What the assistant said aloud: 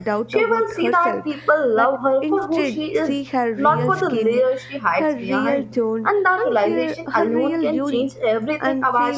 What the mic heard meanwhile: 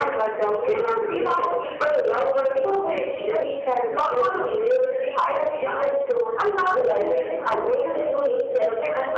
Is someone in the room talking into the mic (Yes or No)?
Yes